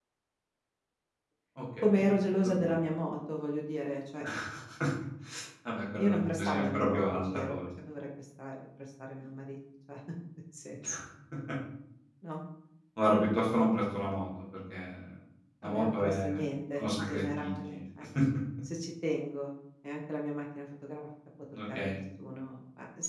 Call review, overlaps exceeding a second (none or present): present